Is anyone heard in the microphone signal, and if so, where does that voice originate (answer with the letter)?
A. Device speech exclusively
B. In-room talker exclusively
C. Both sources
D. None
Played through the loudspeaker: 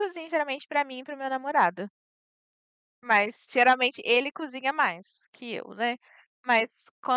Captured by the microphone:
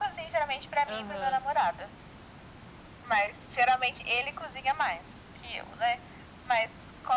C